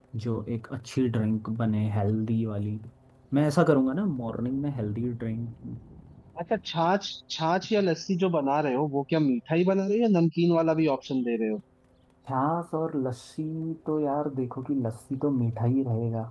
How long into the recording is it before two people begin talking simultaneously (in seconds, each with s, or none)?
none